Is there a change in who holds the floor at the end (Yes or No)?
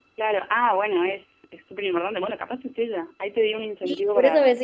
Yes